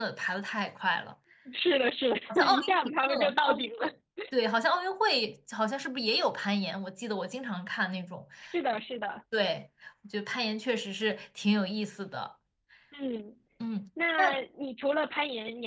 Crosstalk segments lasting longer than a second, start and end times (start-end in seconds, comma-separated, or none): 2.3-3.9